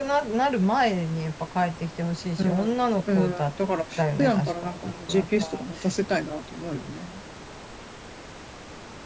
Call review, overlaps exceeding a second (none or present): present